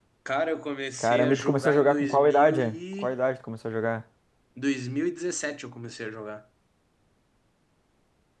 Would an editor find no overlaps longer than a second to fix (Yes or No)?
No